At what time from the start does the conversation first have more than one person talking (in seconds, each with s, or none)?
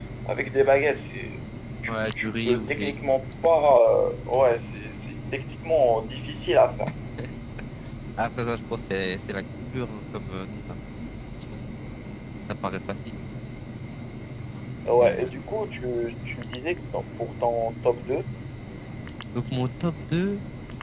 1.9 s